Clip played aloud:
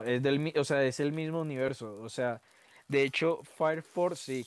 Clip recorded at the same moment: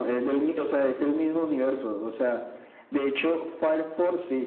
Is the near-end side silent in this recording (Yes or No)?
Yes